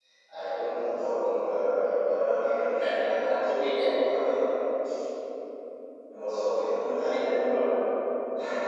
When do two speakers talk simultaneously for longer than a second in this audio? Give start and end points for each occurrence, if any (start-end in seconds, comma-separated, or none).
2.8-4.0